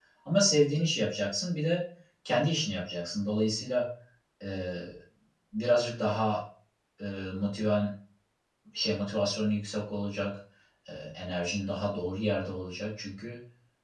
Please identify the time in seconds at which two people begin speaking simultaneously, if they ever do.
none

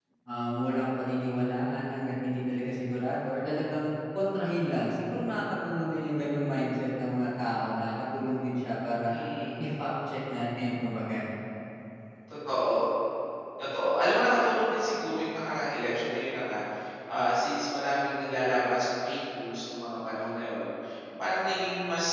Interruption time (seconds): none

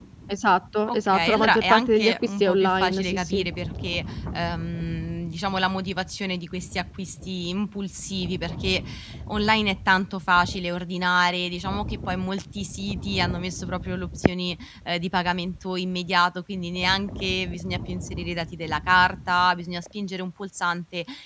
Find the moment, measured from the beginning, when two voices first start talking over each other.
0.9 s

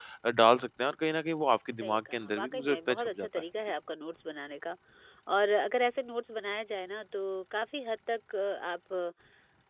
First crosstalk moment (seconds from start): 1.8 s

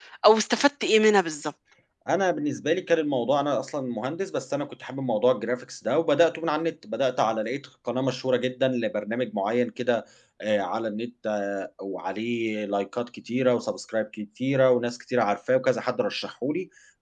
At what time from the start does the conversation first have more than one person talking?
none

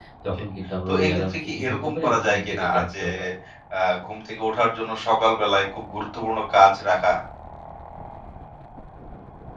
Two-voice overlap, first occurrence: 0.9 s

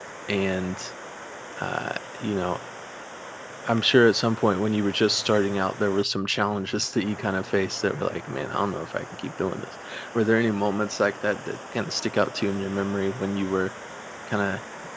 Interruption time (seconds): none

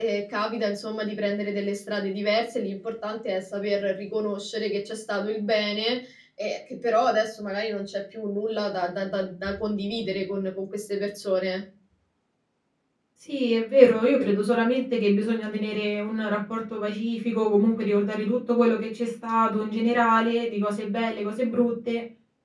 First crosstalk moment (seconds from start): none

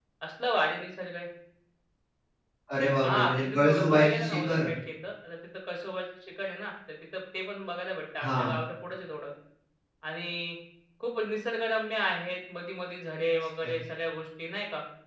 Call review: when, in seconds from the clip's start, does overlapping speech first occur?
3.0 s

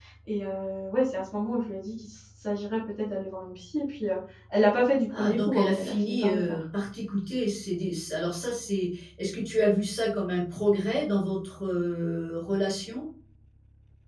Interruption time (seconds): 5.1 s

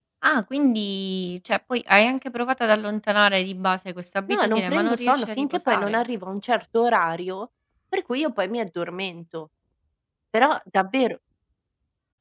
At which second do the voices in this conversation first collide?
4.3 s

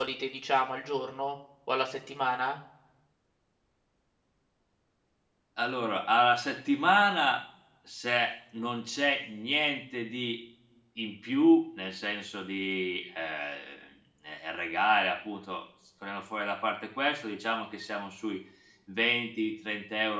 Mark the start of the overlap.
none

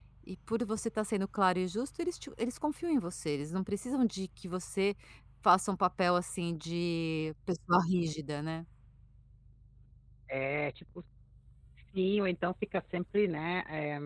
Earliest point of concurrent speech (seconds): none

